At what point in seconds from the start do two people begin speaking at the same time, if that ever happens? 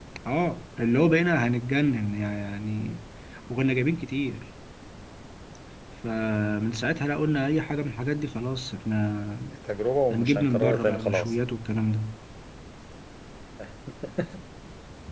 10.1 s

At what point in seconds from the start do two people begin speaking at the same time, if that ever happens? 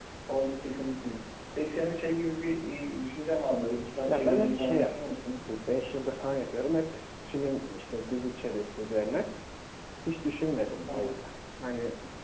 4.1 s

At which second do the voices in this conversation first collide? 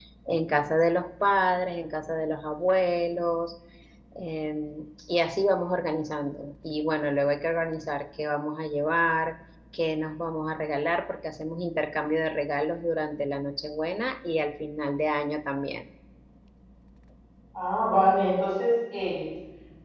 none

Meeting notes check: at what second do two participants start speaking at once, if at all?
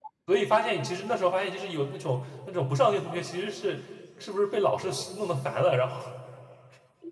none

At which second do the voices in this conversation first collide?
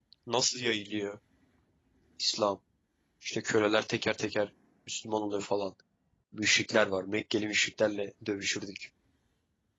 none

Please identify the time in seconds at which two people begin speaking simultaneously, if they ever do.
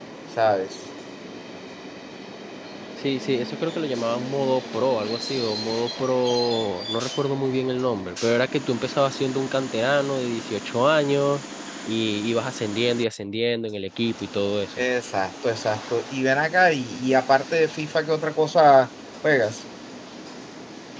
none

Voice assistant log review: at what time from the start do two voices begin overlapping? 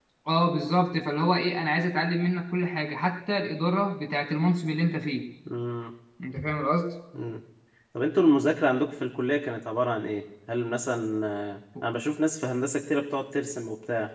none

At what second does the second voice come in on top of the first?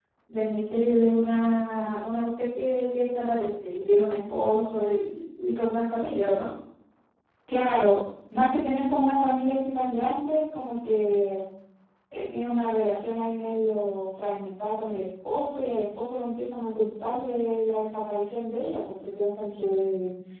none

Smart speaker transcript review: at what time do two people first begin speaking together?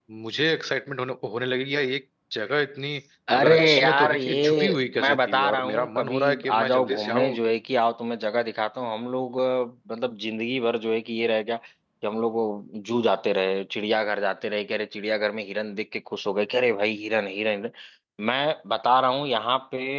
3.4 s

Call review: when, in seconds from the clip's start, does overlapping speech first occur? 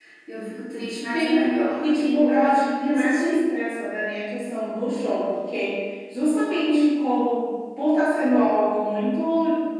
1.1 s

